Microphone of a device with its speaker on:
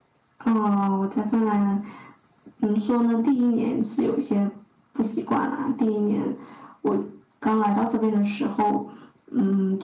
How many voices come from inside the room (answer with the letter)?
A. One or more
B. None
B